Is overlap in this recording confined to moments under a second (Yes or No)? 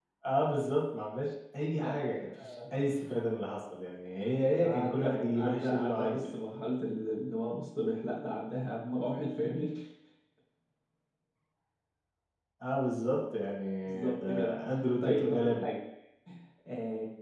No